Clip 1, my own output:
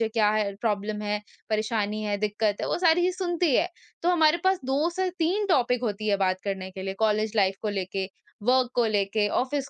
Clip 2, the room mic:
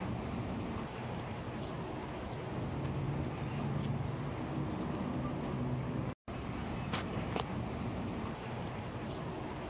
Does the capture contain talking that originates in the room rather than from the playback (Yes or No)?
No